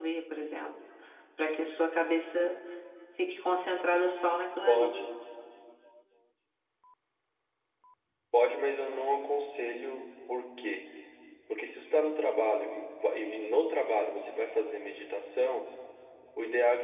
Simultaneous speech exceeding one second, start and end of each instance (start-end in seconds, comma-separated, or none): none